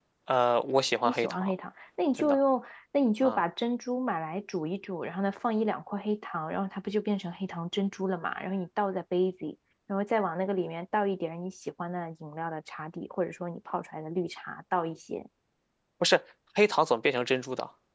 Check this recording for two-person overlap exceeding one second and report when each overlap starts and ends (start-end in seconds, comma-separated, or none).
none